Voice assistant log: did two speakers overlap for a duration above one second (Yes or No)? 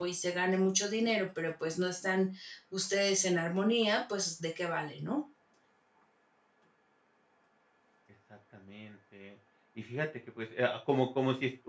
No